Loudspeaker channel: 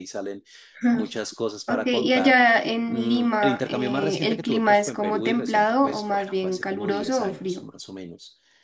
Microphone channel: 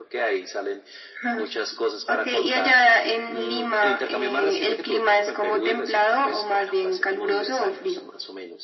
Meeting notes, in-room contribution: none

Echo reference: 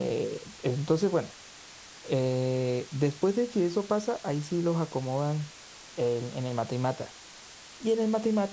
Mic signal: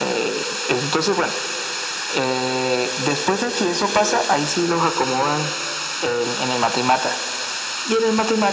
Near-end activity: none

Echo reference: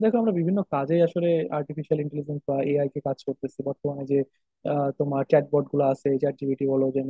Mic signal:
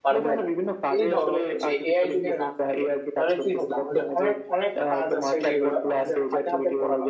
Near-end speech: present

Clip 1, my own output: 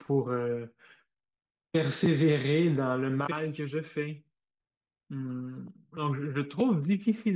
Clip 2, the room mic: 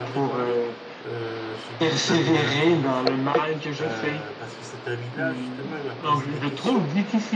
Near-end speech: present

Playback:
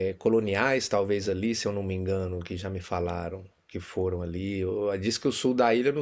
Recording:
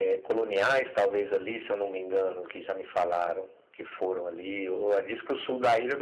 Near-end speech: none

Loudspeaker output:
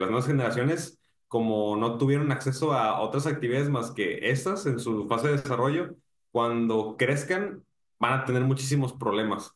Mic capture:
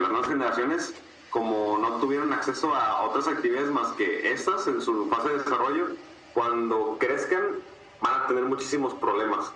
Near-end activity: none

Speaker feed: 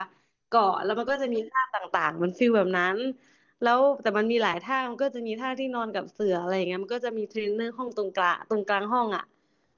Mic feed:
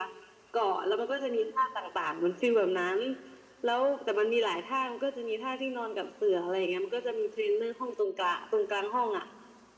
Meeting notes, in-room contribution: none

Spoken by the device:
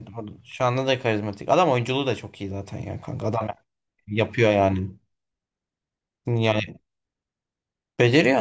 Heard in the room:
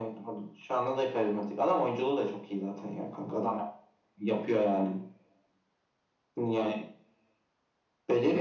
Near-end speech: none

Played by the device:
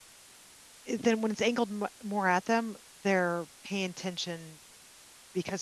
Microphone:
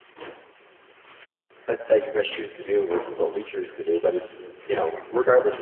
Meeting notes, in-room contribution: present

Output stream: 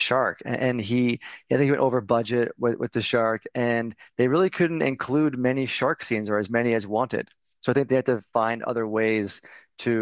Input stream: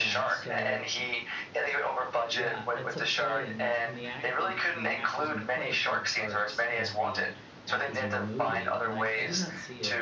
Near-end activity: present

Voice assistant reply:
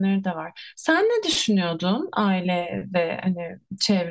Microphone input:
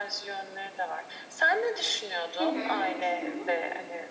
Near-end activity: present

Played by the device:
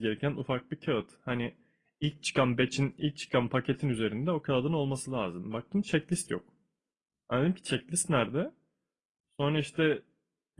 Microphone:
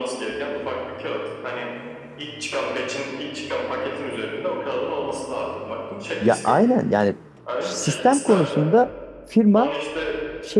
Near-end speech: present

